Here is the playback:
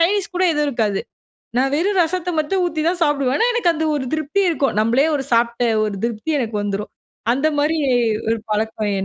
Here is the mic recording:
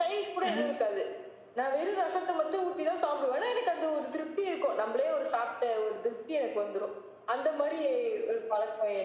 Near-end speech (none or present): present